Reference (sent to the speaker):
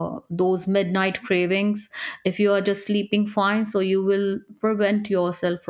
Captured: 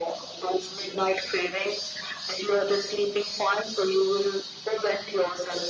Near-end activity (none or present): none